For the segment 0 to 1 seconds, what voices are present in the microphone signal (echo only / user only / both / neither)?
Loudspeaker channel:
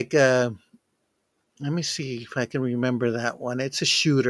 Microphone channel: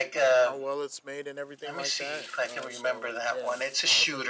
both